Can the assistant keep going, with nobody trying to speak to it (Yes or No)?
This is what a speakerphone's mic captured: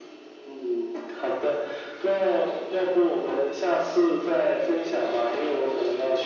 Yes